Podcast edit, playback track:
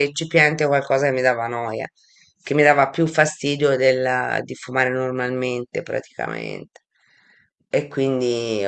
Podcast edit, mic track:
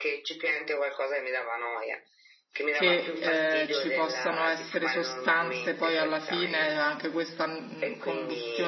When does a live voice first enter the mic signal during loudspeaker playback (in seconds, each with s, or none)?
2.7 s